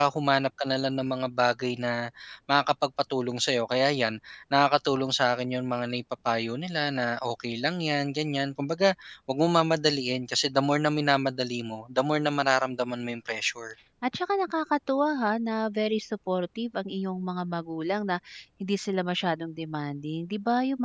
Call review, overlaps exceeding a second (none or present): none